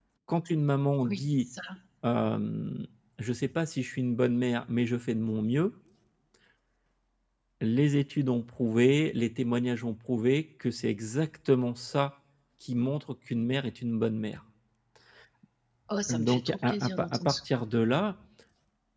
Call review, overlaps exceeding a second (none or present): present